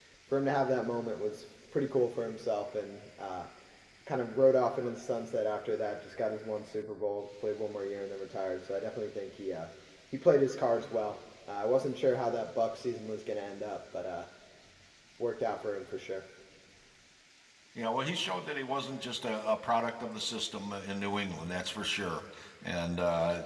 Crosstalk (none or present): none